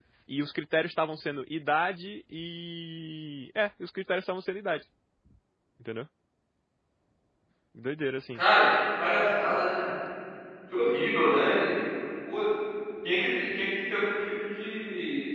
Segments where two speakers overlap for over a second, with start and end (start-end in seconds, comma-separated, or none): none